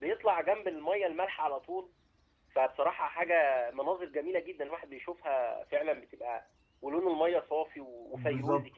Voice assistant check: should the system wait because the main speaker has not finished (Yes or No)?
No